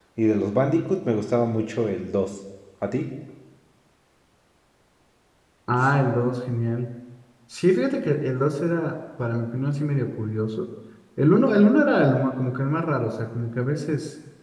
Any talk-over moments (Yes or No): No